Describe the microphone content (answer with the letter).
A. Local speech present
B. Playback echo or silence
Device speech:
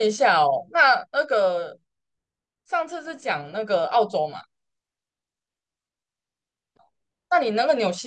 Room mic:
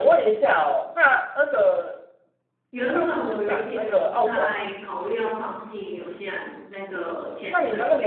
A